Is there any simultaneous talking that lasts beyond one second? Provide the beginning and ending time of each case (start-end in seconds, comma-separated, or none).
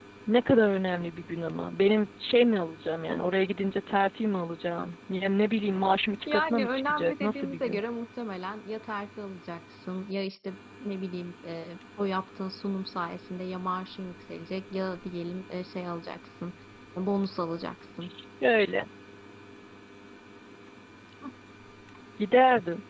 6.3-7.8